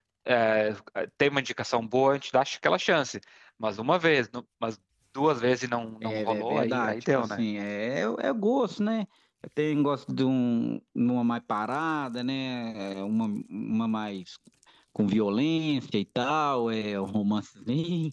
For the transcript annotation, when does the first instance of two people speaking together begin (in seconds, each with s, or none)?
6.0 s